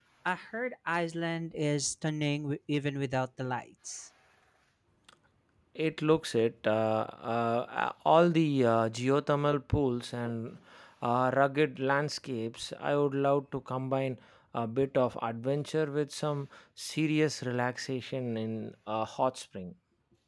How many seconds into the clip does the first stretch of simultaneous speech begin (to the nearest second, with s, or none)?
none